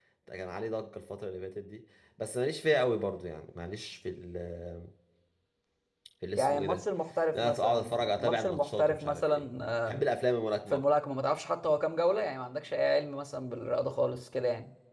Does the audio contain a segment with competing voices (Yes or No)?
Yes